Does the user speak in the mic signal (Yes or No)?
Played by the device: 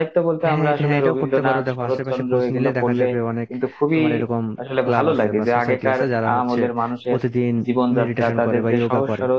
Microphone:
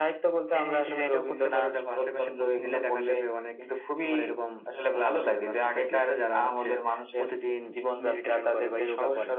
No